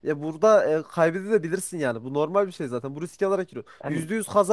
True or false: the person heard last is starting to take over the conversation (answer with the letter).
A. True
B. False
B